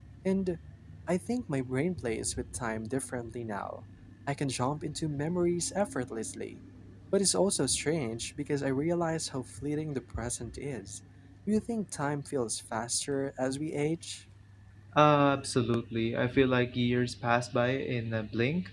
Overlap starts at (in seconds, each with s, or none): none